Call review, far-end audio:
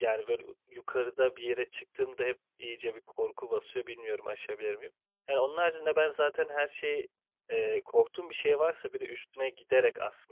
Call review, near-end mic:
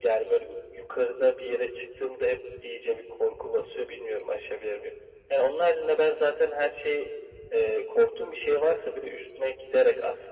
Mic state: echo only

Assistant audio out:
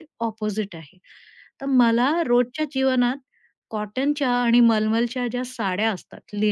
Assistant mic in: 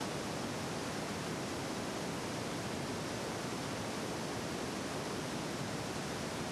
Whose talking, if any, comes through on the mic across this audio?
neither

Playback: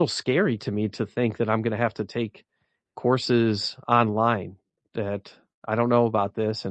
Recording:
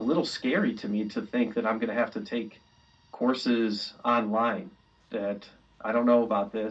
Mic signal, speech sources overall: echo only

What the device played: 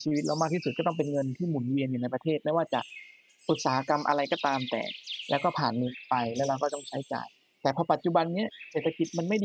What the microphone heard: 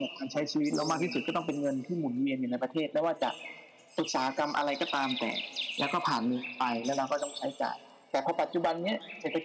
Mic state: both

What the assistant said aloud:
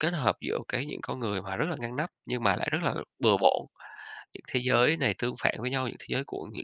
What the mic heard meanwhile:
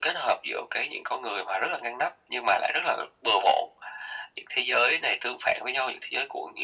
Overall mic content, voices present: echo only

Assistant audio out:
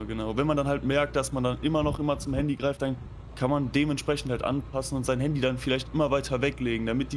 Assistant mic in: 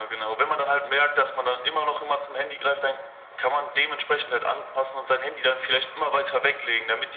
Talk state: echo only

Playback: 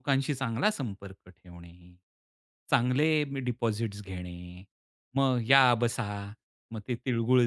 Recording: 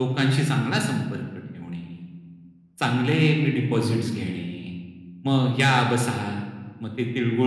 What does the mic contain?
echo only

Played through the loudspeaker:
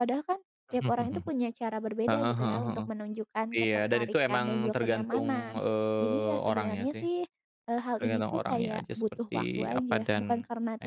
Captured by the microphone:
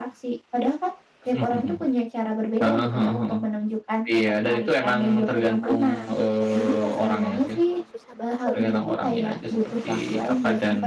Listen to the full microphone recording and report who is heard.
both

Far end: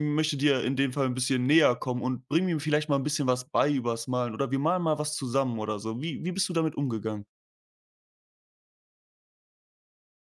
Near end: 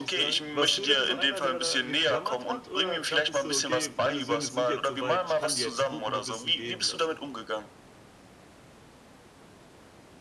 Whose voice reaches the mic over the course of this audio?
both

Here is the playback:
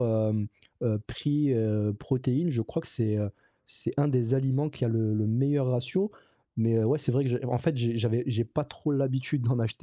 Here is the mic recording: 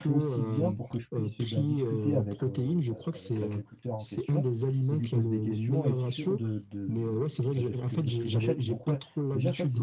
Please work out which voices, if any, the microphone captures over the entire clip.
both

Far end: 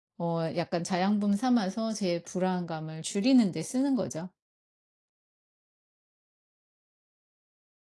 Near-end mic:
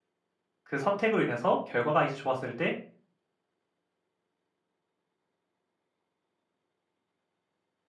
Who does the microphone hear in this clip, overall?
user only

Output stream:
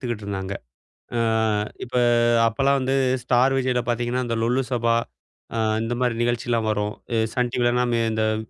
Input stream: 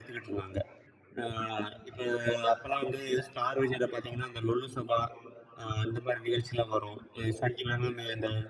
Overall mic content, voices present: echo only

